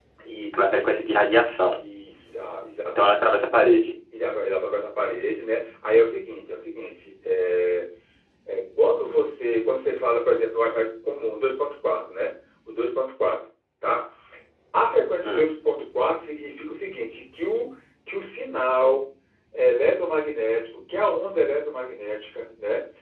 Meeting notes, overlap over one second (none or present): none